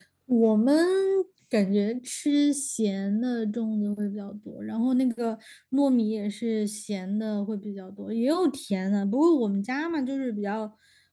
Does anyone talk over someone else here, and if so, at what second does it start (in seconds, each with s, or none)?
none